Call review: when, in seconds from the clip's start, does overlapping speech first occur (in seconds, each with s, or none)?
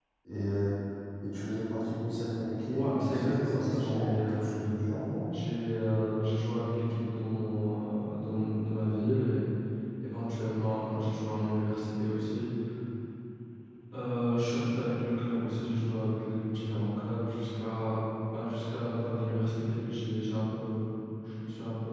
2.7 s